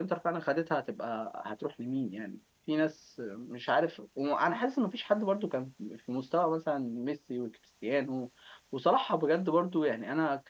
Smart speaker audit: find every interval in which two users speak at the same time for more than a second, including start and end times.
none

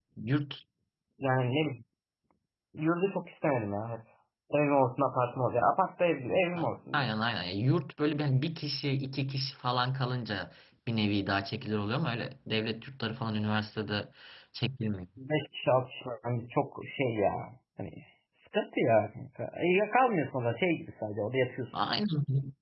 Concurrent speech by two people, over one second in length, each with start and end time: none

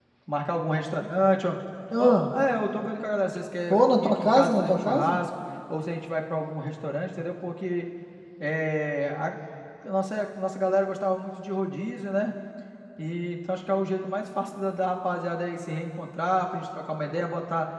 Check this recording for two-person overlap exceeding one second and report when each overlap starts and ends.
3.7-5.2

